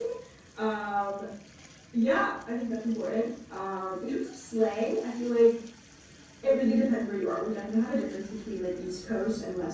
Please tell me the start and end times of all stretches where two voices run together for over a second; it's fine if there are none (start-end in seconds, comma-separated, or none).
none